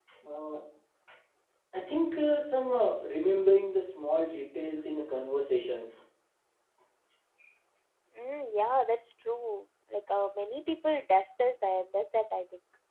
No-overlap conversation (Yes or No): Yes